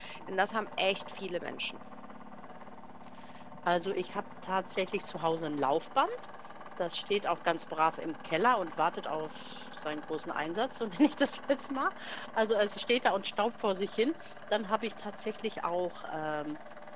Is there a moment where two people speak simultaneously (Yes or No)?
No